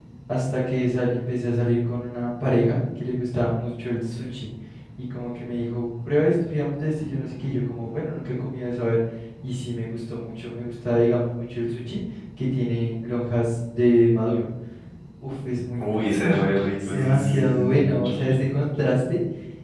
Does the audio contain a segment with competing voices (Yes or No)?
Yes